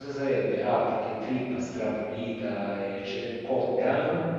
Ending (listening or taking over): listening